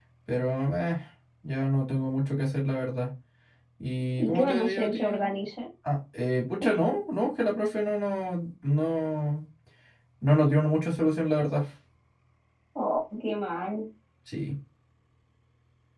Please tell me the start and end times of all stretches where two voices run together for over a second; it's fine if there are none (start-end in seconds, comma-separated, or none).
4.2-5.4